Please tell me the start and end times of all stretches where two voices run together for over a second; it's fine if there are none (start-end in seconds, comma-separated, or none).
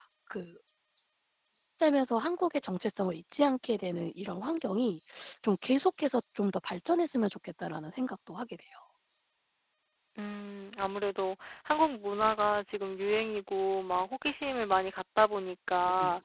none